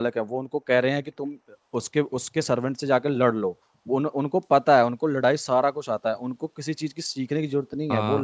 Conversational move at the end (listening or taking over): taking over